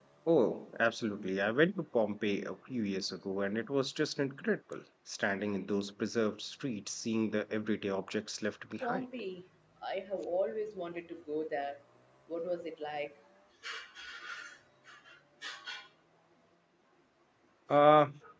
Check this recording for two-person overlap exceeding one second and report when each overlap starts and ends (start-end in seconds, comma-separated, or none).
none